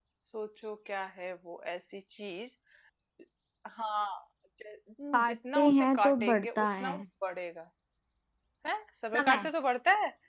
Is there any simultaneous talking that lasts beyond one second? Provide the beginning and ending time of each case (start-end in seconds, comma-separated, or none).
5.1-7.0